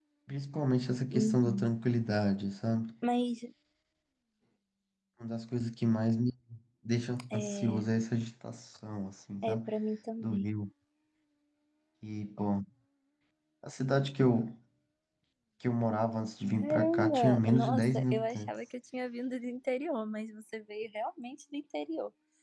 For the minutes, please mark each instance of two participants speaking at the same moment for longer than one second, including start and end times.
16.5-18.5

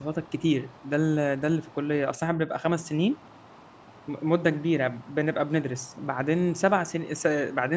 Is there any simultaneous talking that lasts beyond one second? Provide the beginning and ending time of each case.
none

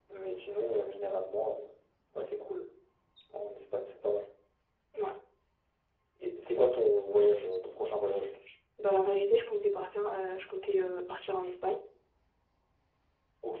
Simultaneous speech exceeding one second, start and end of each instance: none

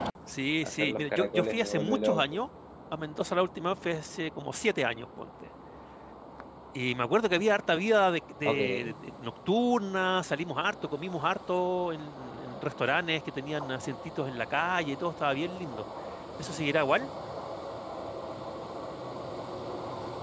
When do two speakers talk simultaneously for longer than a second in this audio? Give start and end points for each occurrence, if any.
0.6-2.2

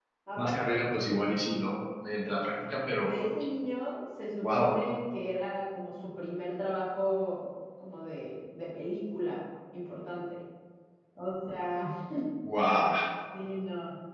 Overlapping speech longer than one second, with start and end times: none

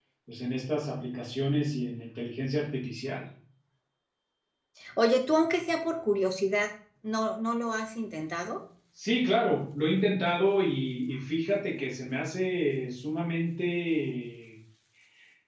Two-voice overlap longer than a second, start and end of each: none

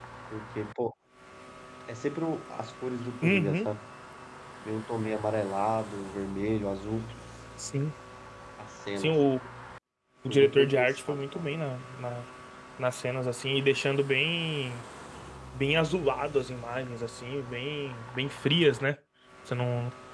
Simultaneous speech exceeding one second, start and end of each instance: 10.3-11.5

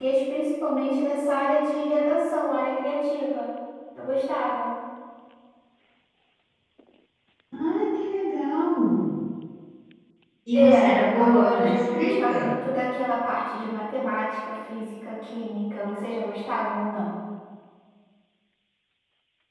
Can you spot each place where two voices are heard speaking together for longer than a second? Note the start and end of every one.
10.5-12.6

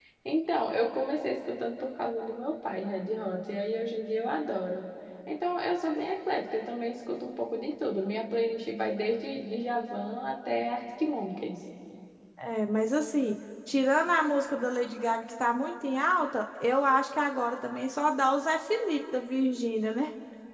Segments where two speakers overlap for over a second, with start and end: none

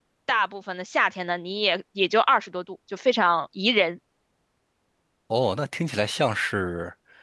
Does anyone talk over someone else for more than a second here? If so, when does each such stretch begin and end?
none

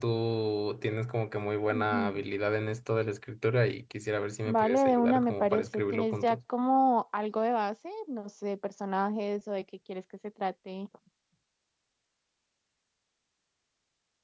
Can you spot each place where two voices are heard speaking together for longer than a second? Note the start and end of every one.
4.5-6.4

